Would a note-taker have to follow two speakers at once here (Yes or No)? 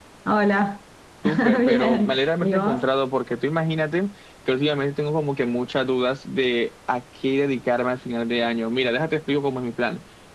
Yes